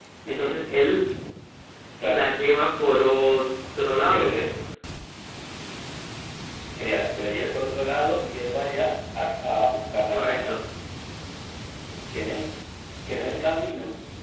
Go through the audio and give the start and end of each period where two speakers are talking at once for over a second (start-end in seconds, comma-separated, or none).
none